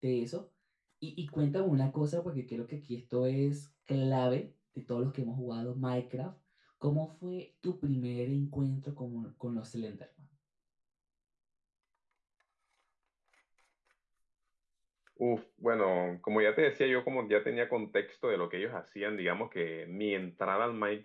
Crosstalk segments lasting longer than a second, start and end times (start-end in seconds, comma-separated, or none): none